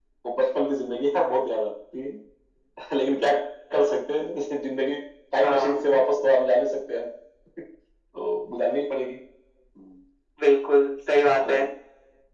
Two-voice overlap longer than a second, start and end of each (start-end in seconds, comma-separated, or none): none